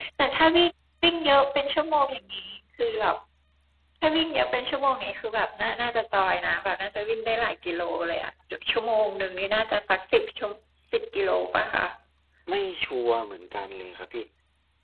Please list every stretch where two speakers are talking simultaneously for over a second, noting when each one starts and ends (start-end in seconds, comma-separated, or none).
none